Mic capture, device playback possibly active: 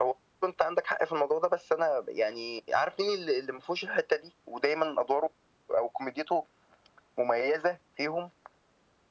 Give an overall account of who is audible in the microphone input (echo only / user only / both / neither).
echo only